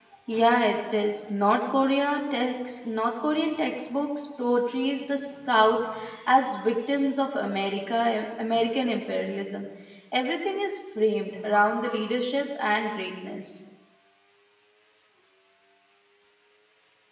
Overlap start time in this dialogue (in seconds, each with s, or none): none